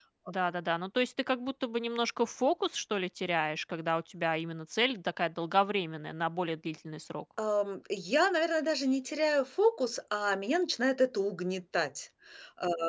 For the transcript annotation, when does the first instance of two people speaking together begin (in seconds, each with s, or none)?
none